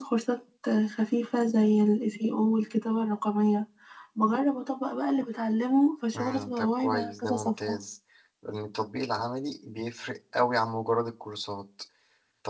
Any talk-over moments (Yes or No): Yes